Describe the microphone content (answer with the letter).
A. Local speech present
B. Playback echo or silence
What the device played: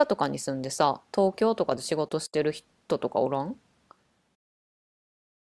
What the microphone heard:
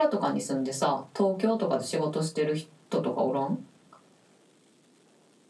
B